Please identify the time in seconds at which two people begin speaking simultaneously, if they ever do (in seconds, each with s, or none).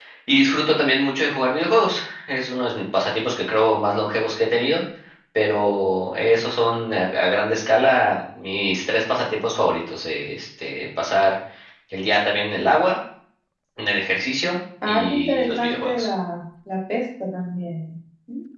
14.8 s